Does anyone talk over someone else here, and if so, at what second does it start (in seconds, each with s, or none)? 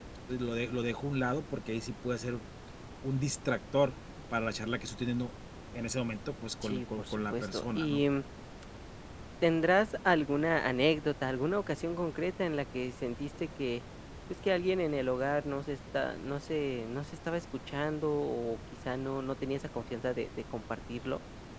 6.6 s